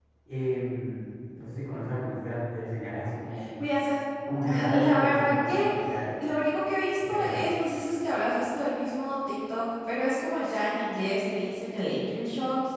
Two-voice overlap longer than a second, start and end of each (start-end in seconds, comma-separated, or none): 4.5-5.7